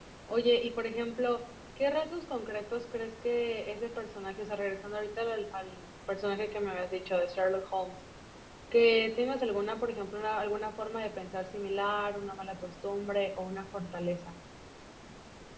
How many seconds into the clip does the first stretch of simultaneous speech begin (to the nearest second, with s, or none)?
none